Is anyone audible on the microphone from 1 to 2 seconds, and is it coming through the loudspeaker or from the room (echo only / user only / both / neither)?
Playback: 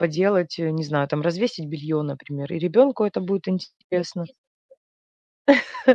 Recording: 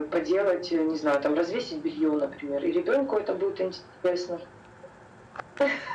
echo only